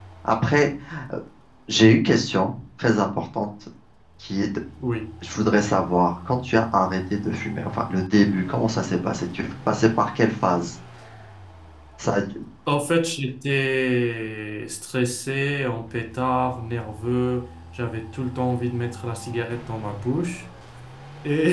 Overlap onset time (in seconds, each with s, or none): none